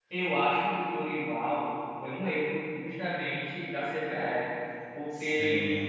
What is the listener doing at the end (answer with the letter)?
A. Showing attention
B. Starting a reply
A